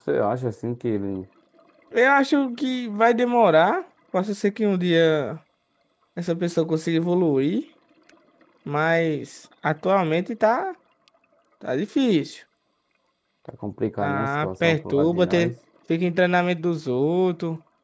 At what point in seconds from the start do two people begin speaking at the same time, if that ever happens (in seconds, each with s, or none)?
14.0 s